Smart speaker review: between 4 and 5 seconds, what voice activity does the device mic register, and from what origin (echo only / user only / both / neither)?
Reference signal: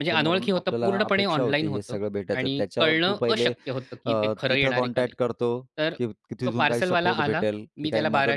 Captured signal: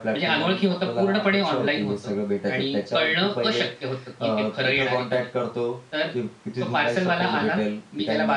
echo only